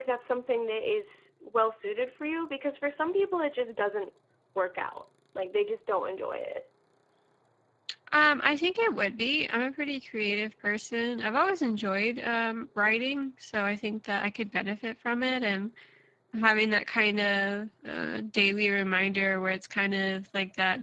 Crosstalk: none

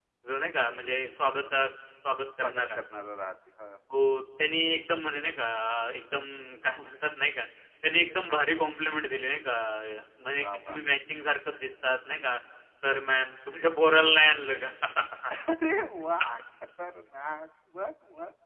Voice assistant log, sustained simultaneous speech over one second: none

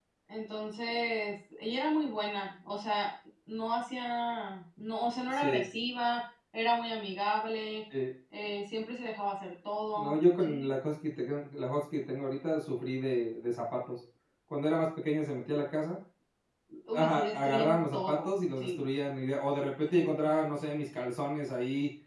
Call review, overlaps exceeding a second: present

